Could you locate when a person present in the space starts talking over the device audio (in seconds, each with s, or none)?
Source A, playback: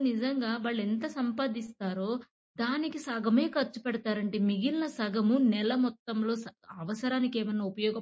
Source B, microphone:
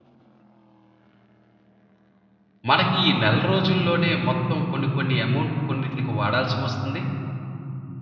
2.7 s